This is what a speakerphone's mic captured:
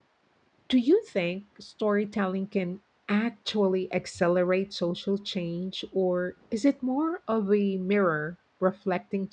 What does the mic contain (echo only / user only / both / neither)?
user only